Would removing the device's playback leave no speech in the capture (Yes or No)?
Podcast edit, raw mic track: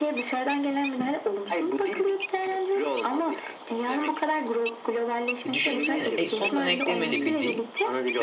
No